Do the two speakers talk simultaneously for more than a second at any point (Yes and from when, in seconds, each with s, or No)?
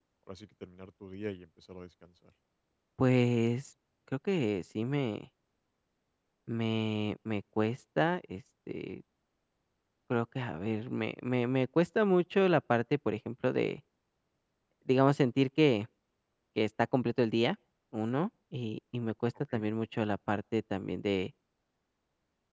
No